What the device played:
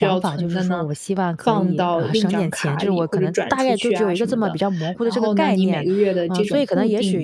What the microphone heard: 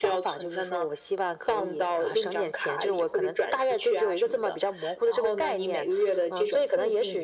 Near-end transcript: none

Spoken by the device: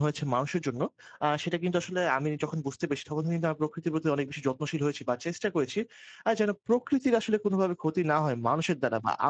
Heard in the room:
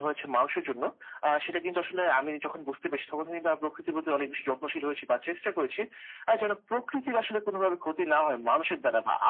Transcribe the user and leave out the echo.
none

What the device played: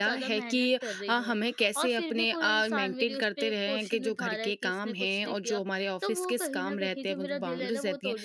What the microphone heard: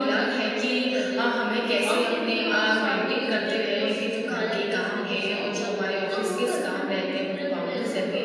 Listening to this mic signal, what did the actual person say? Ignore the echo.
none

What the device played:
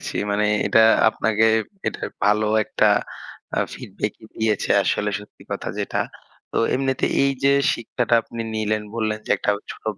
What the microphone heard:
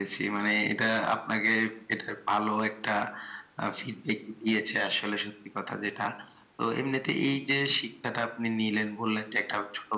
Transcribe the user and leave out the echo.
none

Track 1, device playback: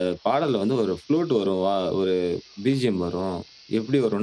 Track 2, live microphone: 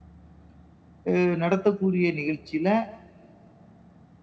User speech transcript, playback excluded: அஹ், நடத்தக்கூடிய நிகழ்ச்சியில

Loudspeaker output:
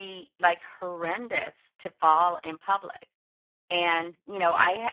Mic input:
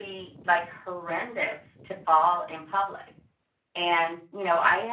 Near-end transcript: none

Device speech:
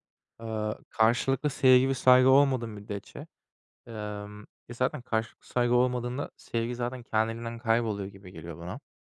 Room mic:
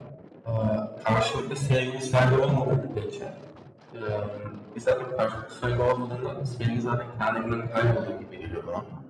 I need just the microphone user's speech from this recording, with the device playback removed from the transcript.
none

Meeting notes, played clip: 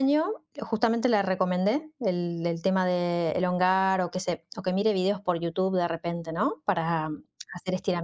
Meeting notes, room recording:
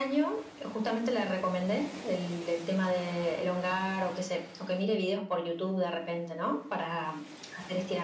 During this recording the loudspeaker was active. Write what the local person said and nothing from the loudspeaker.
none

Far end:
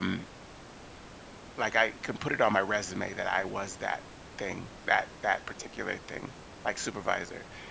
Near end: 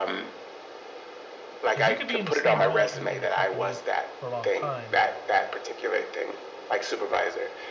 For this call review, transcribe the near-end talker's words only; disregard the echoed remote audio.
Because you could be in the same role in in a company for a long time,

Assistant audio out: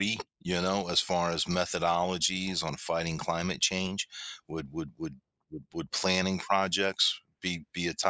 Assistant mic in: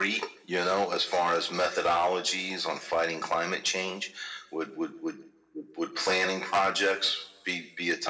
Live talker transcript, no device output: none

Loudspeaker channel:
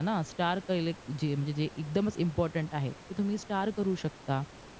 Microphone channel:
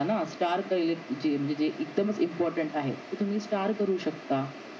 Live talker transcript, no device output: none

